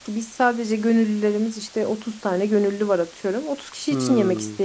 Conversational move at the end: taking over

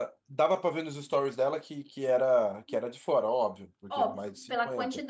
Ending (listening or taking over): taking over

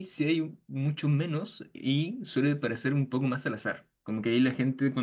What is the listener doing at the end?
listening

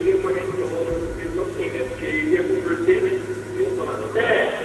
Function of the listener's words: taking over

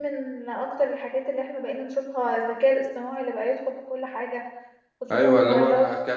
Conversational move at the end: taking over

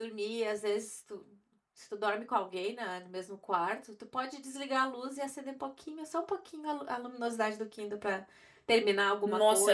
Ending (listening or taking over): taking over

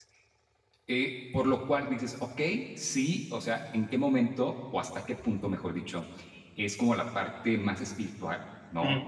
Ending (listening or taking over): listening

